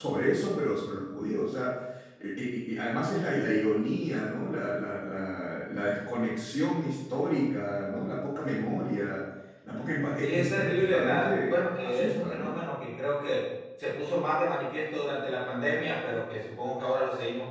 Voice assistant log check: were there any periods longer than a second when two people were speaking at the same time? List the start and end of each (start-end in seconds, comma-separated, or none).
10.2-12.5